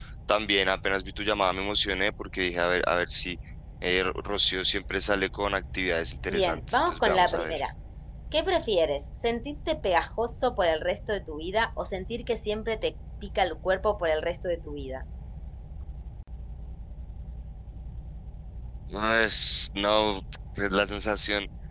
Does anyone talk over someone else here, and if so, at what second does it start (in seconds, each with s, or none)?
6.3 s